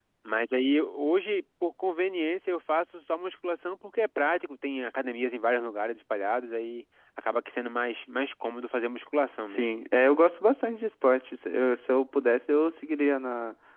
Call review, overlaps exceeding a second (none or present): none